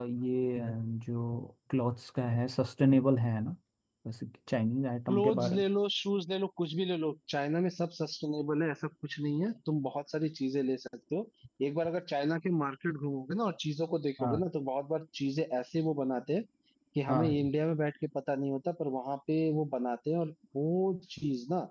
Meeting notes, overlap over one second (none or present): none